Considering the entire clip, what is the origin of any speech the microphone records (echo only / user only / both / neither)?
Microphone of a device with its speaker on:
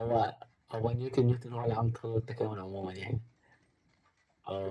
echo only